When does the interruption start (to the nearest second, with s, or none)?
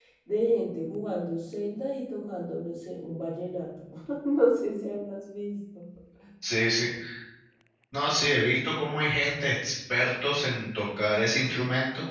none